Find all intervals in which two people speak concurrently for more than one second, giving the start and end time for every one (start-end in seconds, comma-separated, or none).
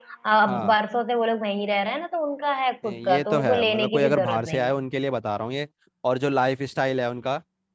2.8-4.7